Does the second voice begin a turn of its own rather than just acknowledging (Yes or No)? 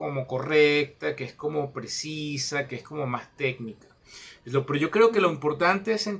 No